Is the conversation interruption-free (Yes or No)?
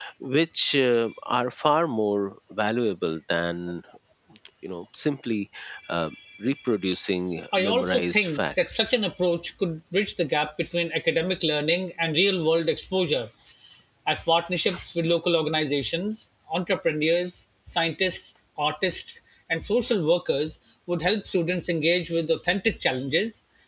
No